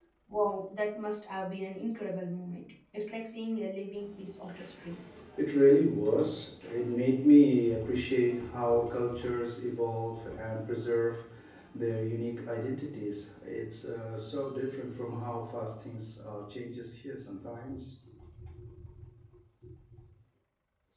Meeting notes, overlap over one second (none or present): none